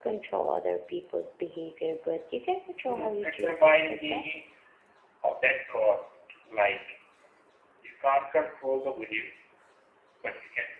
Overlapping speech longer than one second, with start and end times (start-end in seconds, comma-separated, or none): 2.8-4.2